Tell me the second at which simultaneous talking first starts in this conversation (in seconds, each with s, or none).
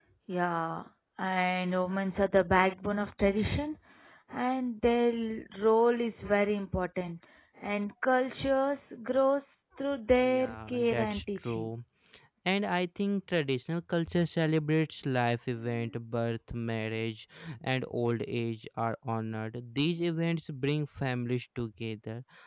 10.2 s